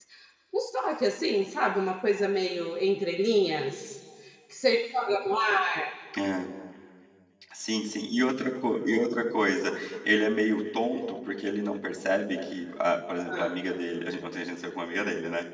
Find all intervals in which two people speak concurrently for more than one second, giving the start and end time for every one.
none

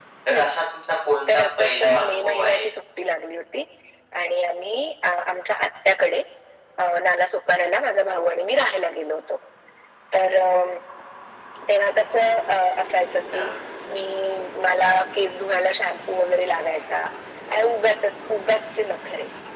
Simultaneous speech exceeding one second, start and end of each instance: 1.3-2.7

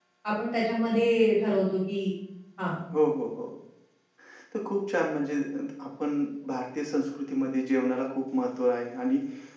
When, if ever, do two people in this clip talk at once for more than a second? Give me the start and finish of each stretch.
none

